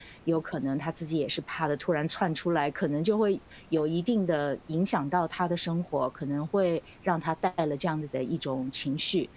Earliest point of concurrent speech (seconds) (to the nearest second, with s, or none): none